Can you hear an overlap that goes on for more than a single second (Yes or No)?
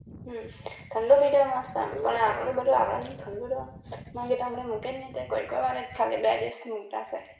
Yes